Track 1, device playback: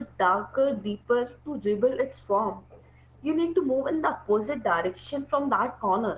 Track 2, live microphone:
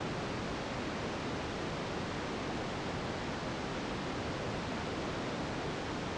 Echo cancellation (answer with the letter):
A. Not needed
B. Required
A